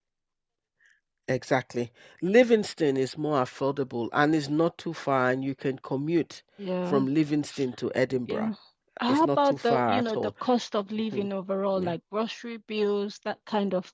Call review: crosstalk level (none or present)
present